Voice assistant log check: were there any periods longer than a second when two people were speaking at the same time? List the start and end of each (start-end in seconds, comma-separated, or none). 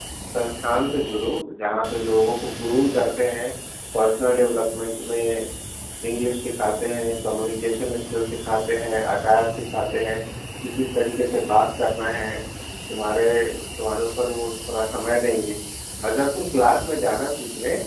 none